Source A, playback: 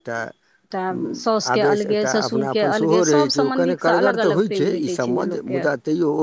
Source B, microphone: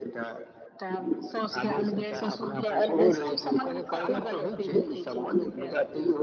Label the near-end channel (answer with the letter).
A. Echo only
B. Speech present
A